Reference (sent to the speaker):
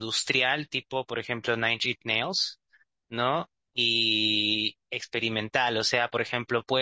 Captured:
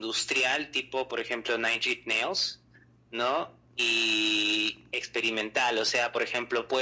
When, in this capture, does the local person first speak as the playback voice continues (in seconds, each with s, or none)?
none